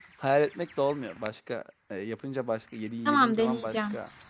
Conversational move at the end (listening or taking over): listening